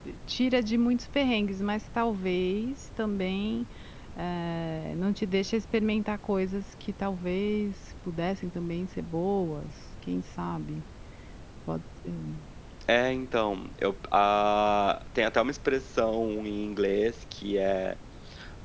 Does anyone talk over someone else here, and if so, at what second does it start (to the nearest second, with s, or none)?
none